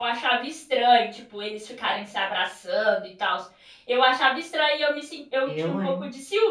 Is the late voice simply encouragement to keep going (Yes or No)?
Yes